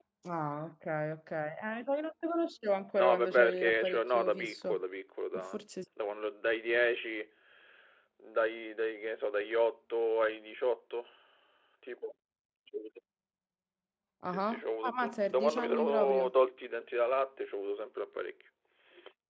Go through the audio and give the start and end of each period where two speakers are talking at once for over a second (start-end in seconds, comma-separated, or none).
2.9-4.8, 14.2-16.3